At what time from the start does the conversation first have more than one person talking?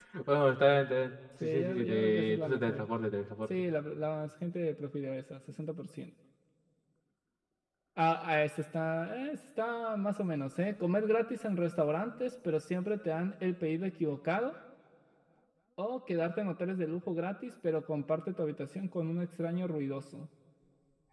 1.4 s

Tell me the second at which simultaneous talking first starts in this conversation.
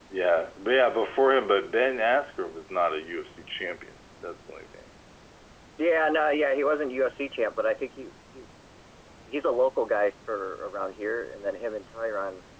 none

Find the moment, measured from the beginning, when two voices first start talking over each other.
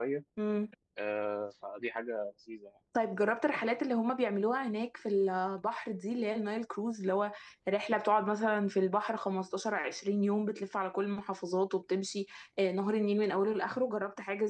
none

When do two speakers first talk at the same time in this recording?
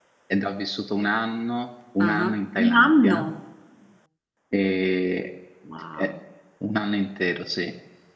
2.0 s

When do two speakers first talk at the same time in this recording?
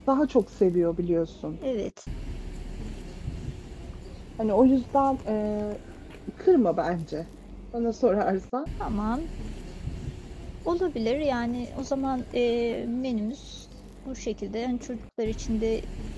none

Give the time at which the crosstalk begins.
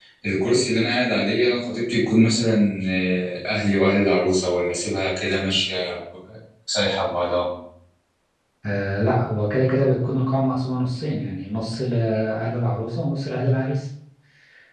none

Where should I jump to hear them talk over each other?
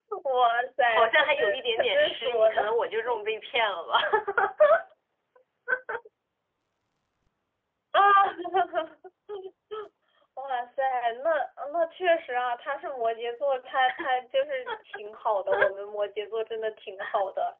0.9 s

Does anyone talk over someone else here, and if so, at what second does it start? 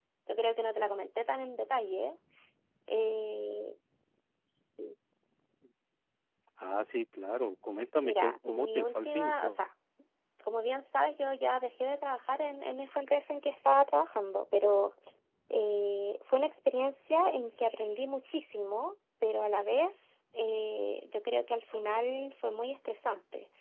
8.0 s

